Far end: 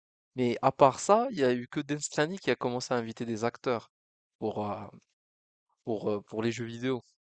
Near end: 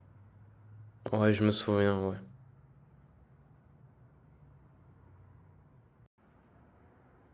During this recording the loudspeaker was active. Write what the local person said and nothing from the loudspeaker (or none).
ouais, je me souviens, ouais.